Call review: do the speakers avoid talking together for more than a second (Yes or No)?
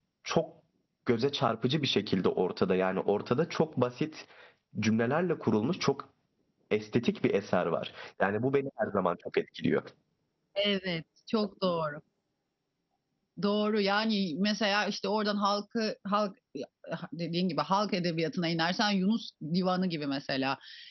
Yes